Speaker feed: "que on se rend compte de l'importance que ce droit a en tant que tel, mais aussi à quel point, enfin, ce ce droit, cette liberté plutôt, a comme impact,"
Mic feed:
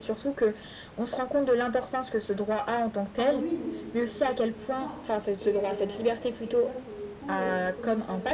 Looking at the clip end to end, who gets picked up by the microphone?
both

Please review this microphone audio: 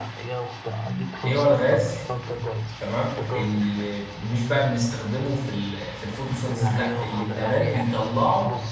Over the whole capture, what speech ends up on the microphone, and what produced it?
both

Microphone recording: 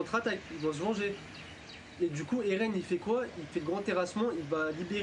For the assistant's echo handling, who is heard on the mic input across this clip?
user only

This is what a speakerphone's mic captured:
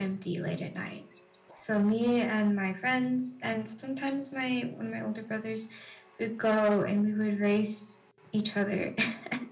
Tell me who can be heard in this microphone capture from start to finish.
echo only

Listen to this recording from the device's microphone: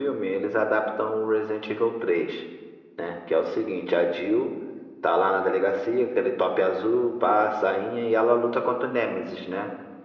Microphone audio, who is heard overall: echo only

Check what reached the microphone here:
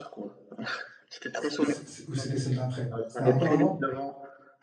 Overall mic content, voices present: both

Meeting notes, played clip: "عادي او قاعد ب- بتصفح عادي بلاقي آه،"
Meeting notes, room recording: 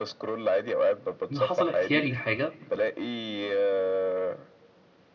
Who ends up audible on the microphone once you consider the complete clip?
both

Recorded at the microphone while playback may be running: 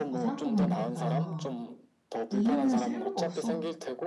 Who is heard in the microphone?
both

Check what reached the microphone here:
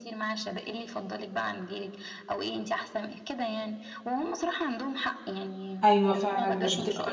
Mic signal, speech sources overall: both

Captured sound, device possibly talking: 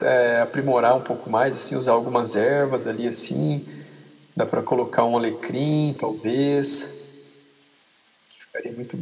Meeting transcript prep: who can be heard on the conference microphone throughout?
echo only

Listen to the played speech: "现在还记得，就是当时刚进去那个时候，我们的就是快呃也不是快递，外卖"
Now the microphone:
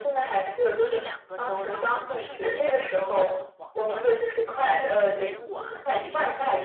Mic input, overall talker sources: both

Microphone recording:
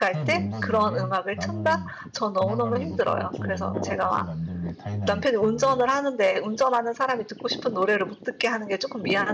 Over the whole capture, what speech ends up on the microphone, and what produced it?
both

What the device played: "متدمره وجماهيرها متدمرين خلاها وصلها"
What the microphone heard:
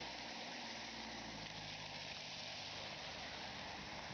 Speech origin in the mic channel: neither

